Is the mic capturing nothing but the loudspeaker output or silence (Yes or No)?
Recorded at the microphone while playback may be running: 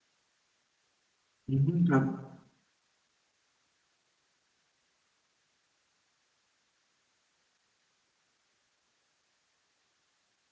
No